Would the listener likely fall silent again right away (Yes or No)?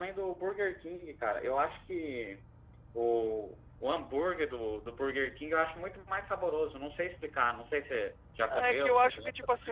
No